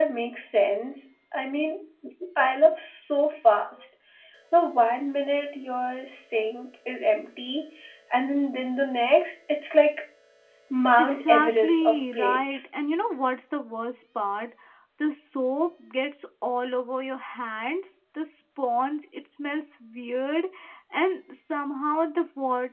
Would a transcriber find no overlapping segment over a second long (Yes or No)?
No